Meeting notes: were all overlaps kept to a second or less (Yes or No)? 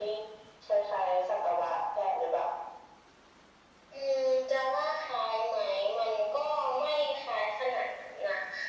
Yes